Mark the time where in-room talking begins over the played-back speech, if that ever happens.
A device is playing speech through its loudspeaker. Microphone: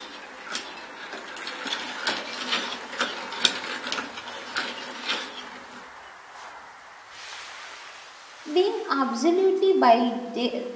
9 s

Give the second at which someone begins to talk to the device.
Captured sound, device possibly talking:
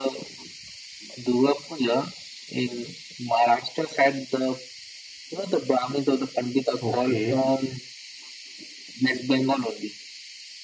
7 s

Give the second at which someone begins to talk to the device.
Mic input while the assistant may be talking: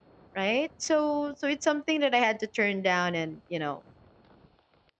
0 s

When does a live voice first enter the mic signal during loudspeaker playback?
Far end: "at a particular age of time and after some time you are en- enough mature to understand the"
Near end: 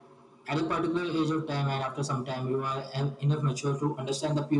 none

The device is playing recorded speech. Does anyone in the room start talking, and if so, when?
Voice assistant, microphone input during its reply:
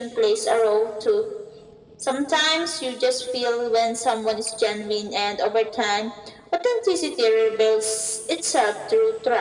none

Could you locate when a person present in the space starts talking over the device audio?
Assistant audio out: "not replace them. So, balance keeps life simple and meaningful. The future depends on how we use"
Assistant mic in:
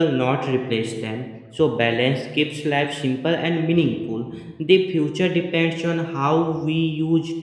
none

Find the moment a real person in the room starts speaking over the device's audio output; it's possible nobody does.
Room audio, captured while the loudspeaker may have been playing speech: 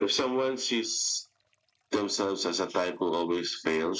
none

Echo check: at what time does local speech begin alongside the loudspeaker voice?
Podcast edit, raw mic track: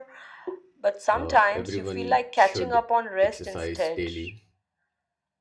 1 s

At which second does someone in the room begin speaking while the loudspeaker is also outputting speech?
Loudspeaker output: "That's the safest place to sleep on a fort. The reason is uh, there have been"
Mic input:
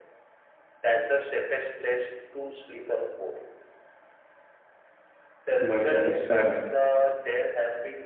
6 s

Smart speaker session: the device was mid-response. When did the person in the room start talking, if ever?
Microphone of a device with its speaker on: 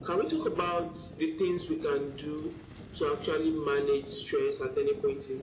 none

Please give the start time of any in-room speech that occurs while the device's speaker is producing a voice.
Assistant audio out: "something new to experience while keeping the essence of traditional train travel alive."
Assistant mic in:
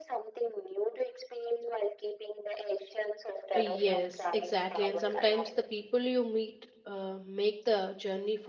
4 s

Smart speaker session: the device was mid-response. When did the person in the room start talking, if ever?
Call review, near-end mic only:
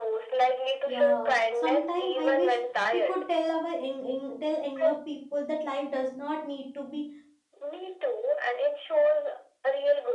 1 s

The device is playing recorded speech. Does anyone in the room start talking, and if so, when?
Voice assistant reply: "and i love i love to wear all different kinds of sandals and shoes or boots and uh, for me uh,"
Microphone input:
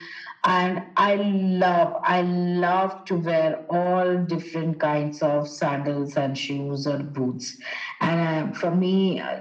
none

